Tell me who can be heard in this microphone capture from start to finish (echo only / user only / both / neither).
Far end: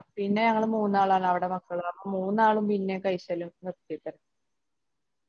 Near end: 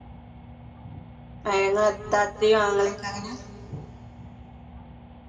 user only